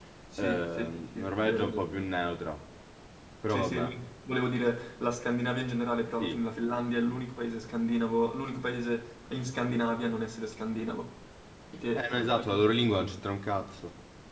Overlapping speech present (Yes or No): Yes